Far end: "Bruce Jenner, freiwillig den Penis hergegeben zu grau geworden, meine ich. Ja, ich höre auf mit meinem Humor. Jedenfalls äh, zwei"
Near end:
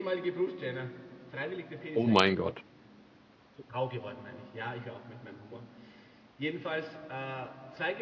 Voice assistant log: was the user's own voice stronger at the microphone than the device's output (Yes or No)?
Yes